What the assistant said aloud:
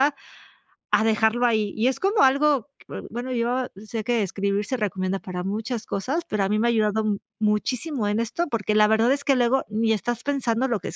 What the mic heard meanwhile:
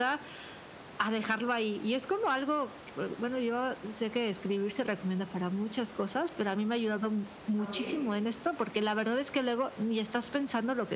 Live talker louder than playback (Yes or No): No